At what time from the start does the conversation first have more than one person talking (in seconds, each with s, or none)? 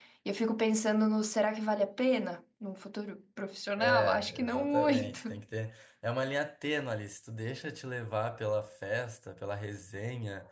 3.8 s